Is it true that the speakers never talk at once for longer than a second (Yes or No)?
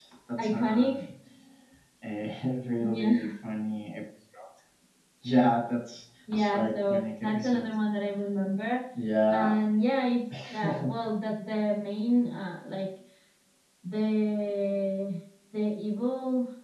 No